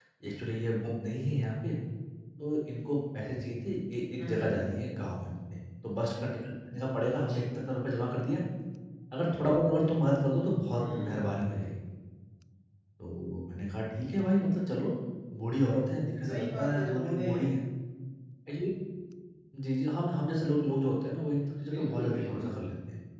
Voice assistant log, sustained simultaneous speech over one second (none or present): present